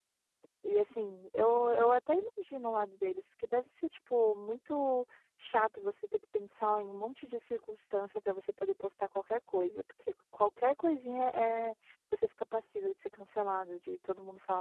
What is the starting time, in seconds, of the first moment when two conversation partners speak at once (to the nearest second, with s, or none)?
none